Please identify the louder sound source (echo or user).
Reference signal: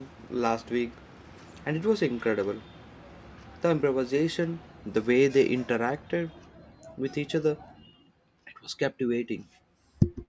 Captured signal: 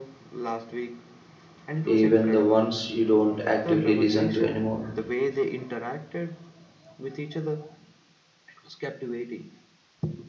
user